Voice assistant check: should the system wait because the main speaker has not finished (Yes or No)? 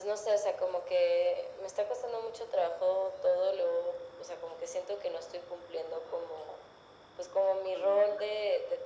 Yes